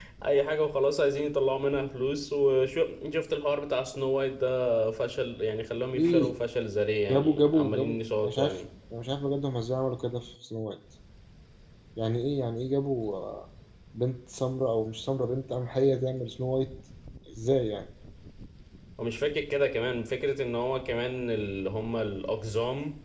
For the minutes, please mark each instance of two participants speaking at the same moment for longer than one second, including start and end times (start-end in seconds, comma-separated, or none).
7.1-8.6